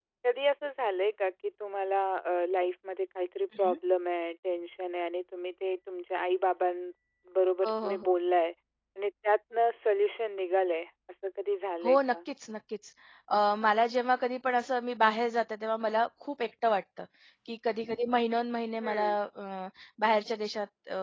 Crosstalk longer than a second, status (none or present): none